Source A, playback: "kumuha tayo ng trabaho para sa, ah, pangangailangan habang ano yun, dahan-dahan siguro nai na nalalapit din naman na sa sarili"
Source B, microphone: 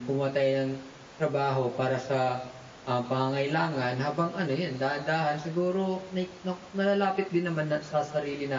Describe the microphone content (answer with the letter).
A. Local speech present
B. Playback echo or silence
B